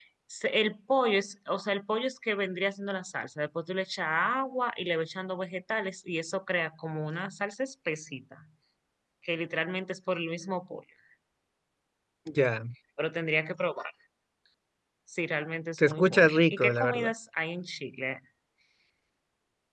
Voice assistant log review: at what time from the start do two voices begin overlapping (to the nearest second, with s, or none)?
16 s